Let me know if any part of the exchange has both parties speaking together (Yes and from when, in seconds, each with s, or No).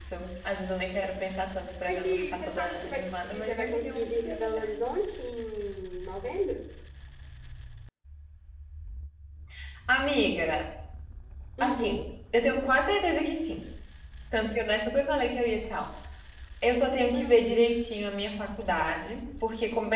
Yes, from 1.9 s